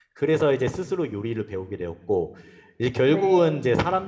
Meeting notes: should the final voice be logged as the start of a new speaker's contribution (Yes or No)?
No